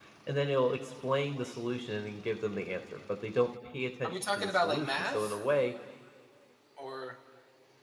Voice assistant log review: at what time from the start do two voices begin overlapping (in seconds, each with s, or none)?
4.0 s